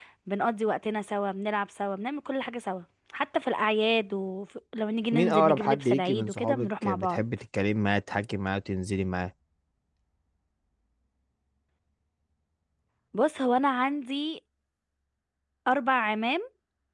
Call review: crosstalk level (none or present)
present